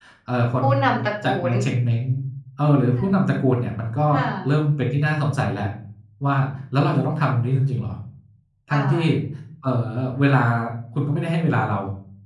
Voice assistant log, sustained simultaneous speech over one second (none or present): none